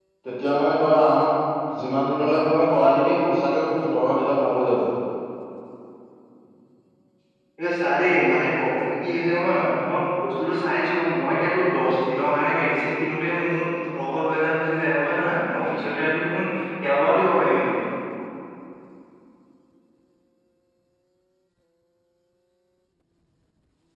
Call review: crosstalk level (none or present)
none